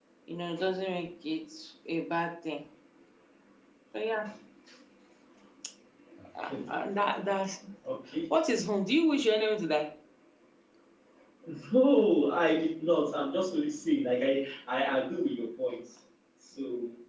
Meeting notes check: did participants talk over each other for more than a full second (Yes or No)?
No